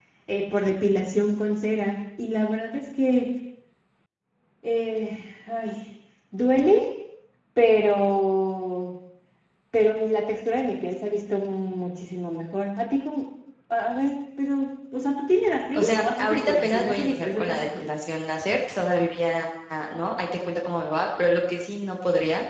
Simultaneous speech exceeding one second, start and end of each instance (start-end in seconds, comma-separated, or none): 15.7-17.9